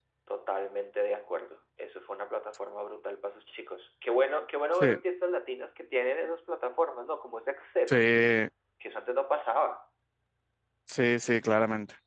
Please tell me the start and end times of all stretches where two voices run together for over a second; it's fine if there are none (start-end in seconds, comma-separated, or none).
none